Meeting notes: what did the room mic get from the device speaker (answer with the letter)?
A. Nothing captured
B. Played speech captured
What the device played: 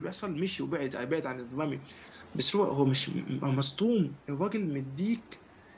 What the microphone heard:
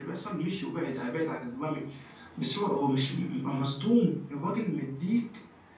B